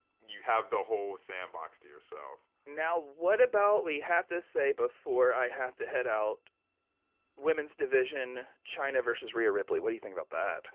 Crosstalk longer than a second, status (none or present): none